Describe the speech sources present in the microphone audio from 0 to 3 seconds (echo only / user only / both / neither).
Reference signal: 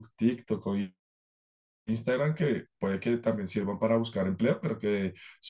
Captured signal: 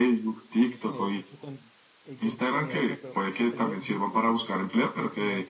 both